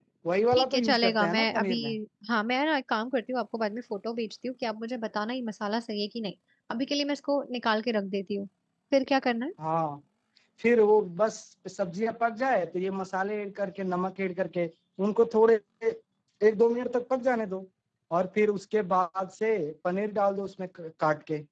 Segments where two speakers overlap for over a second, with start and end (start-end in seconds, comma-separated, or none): 0.5-1.8